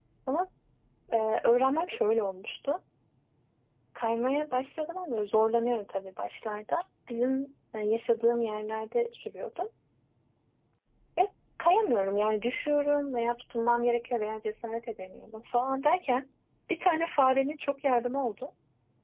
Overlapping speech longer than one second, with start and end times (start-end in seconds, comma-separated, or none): none